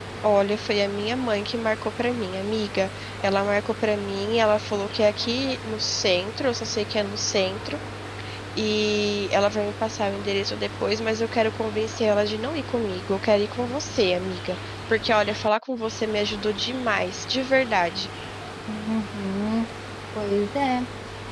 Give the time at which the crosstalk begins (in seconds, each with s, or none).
none